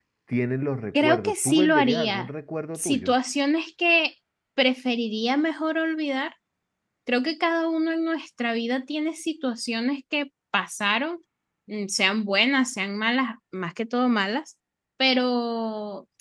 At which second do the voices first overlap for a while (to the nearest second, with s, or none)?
1 s